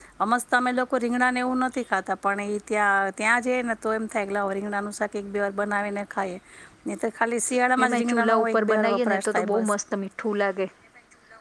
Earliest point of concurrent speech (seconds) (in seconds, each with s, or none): 7.8 s